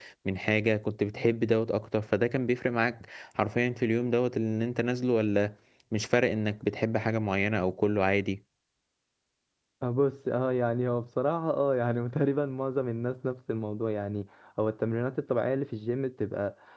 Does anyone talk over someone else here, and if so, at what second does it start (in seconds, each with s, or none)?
none